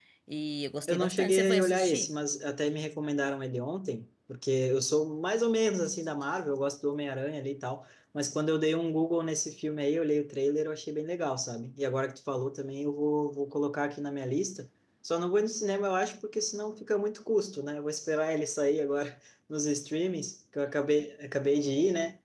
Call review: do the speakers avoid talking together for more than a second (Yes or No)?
No